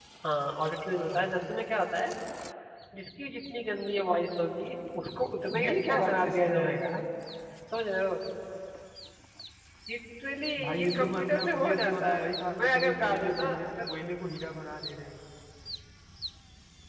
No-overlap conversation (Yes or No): No